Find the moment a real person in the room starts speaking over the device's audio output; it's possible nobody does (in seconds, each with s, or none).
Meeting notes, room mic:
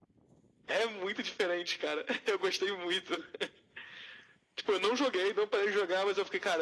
none